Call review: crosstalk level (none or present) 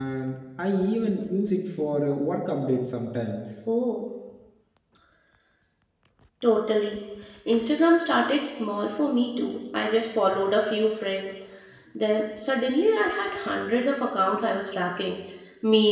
none